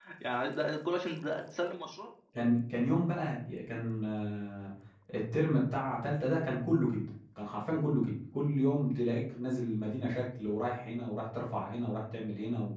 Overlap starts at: none

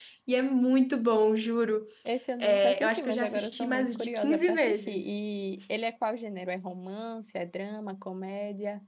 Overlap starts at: 2.4 s

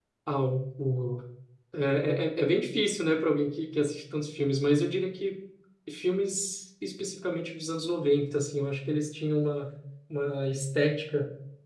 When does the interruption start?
none

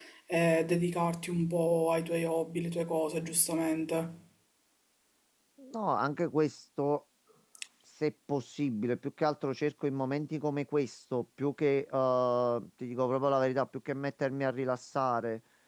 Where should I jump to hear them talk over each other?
none

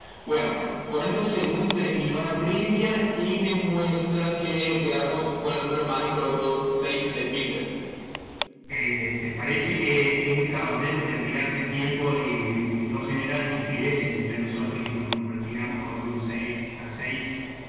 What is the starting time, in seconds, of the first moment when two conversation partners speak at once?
none

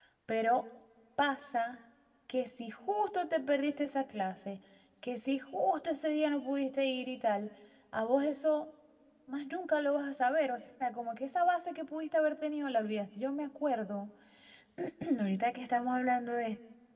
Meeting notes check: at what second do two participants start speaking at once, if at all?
none

